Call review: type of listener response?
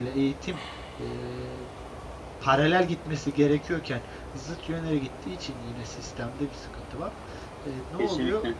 listening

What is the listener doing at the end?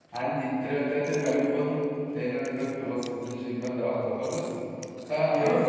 listening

